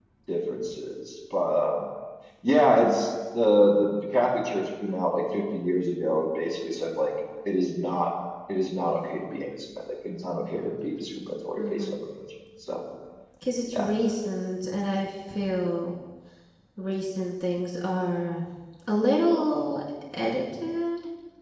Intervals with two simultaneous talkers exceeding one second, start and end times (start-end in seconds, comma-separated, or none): none